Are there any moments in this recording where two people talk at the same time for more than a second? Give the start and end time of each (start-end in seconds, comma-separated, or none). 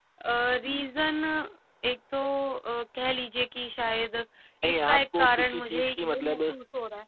4.8-6.4